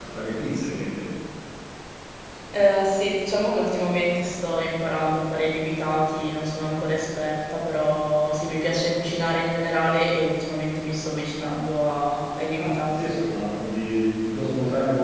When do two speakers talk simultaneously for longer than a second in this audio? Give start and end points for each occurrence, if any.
none

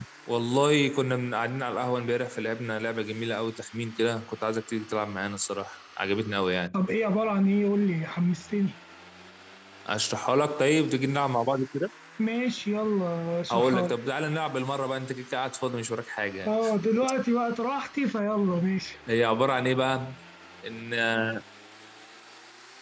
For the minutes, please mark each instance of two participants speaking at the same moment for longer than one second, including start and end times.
none

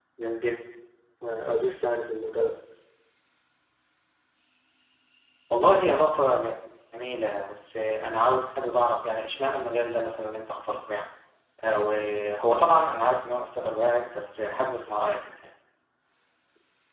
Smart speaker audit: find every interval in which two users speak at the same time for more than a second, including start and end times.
none

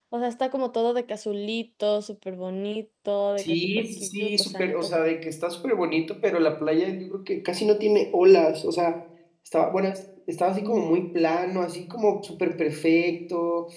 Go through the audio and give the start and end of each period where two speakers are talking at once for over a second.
3.4-4.9

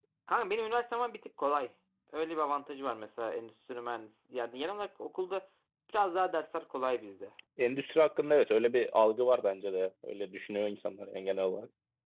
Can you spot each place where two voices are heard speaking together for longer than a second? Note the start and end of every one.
none

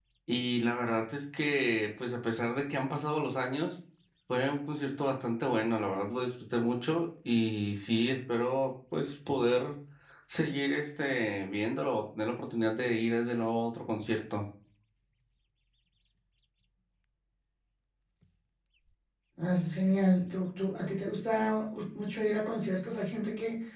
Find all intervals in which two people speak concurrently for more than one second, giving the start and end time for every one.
none

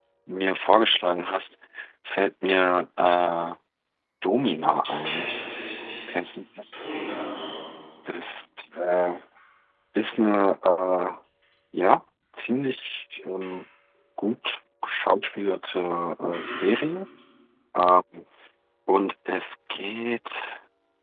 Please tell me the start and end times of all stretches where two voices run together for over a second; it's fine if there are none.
none

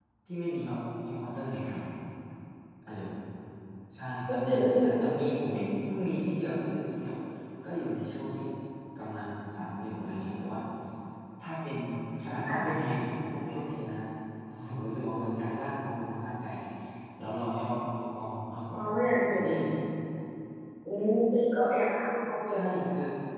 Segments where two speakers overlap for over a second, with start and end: 4.3-5.7

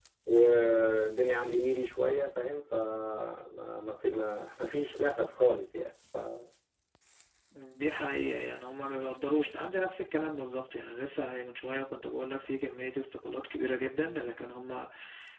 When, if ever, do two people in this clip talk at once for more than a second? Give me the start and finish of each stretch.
none

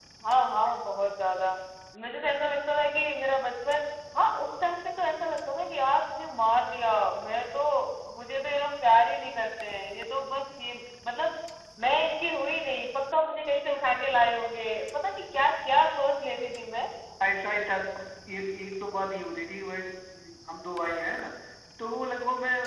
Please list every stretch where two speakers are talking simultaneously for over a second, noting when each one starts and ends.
none

